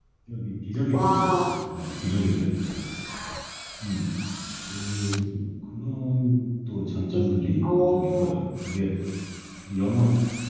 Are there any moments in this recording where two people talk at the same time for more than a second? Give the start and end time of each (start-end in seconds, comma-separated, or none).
7.1-8.3